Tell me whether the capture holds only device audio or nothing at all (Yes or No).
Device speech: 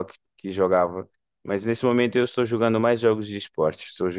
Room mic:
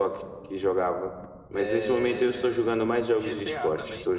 No